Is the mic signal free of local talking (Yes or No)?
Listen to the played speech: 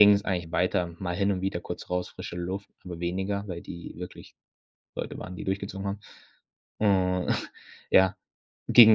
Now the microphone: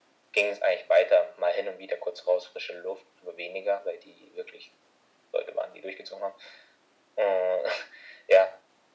Yes